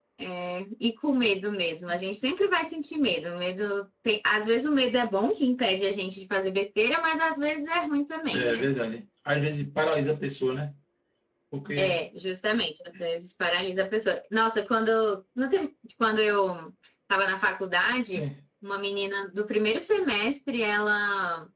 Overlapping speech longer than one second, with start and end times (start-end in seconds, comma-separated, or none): none